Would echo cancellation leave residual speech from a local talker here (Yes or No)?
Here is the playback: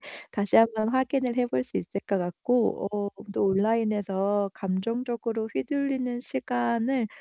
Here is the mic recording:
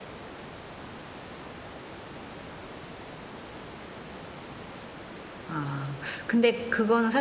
Yes